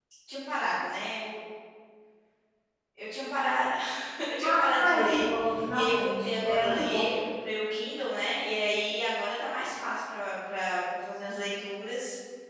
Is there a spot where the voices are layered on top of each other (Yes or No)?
Yes